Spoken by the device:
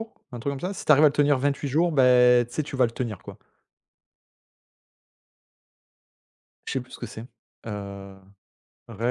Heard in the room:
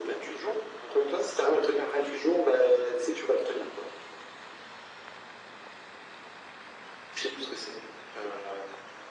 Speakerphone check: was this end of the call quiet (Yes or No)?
Yes